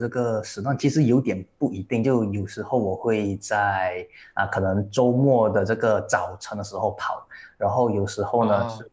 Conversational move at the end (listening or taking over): listening